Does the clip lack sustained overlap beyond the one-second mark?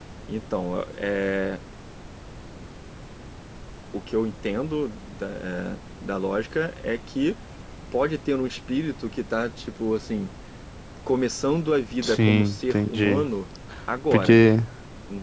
No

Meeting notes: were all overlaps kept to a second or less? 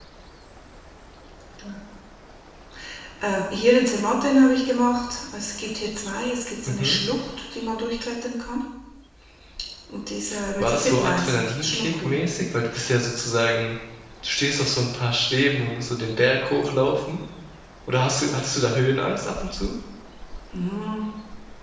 No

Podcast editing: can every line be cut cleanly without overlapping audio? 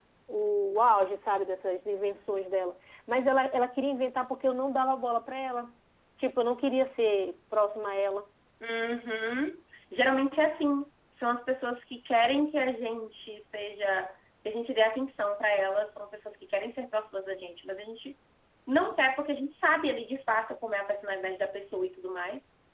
Yes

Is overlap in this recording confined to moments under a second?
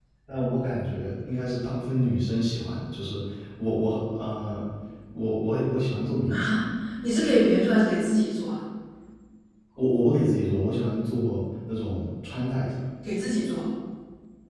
Yes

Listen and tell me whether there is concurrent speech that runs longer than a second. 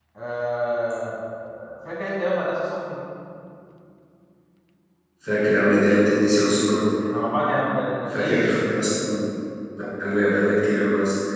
No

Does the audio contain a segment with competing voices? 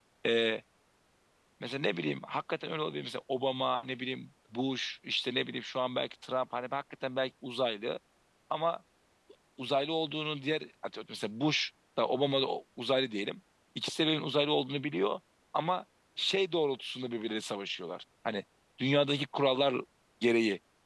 No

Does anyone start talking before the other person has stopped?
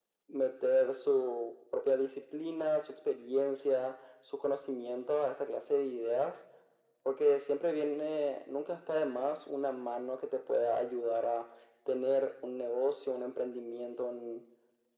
No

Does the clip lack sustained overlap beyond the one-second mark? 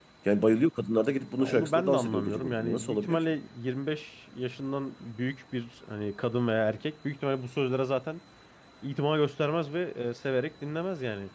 No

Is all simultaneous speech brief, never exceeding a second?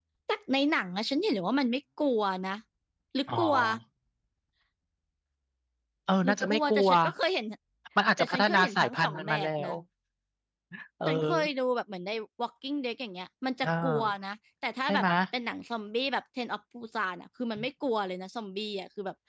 No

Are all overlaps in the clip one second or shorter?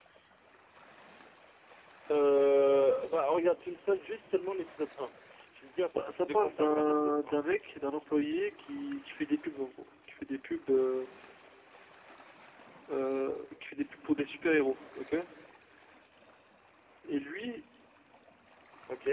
No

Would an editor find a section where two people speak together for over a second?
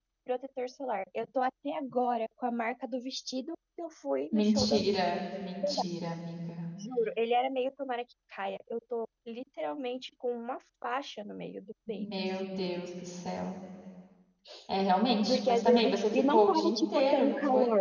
Yes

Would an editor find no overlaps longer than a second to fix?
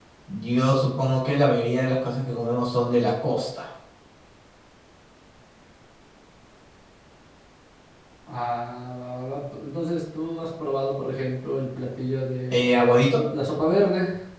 Yes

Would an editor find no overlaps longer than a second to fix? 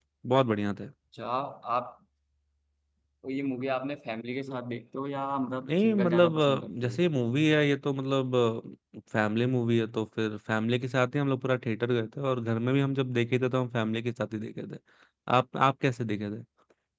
No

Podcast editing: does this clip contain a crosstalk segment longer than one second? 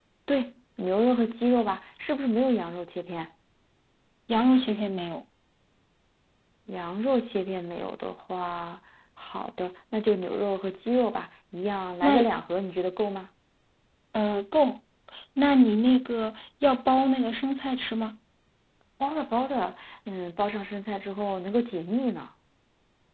No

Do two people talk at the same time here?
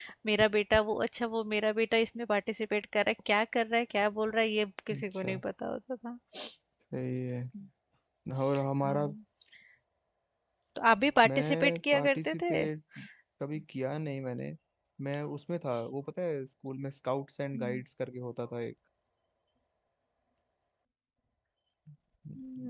Yes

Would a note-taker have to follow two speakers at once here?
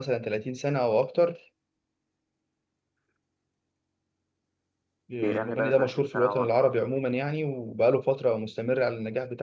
Yes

